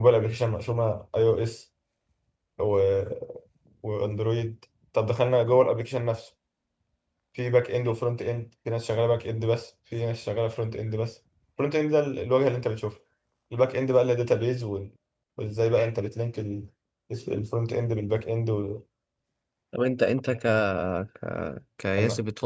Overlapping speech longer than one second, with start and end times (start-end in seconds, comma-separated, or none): none